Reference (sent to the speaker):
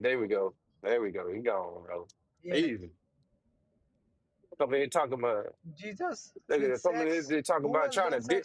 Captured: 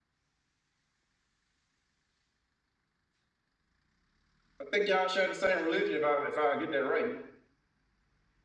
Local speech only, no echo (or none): I think y'all share the same religion. If I if I get that right.